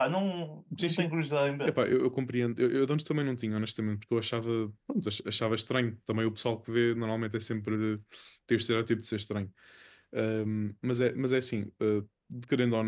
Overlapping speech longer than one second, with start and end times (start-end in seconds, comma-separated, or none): none